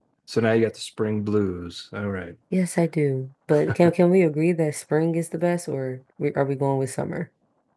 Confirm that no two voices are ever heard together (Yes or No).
Yes